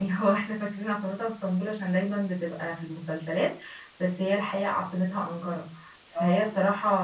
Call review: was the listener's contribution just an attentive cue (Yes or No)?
Yes